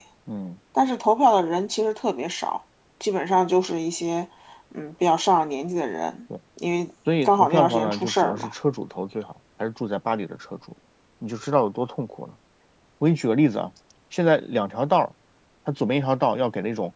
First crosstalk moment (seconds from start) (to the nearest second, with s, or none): 7 s